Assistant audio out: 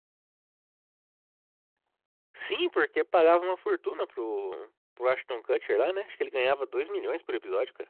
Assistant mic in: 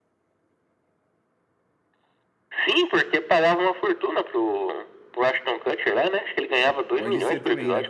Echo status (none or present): present